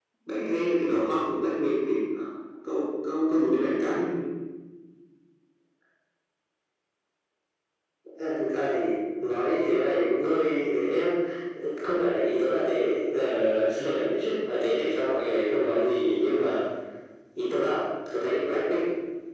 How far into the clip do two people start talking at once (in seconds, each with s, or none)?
none